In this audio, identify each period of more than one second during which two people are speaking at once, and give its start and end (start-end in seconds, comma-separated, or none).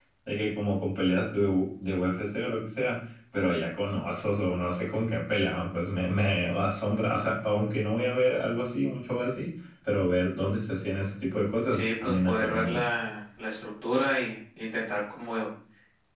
11.7-12.9